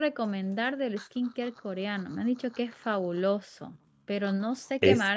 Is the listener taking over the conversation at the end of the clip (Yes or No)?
No